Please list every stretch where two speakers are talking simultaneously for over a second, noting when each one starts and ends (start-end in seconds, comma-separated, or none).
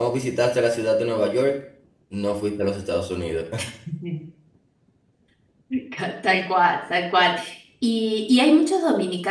none